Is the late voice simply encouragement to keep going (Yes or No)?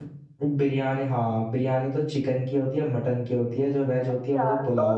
No